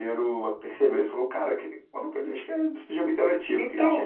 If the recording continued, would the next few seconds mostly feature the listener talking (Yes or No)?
Yes